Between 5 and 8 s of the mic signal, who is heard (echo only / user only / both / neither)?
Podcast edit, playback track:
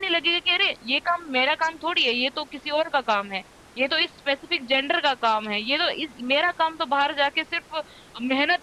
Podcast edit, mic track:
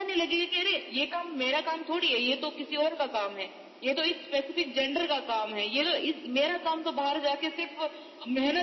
echo only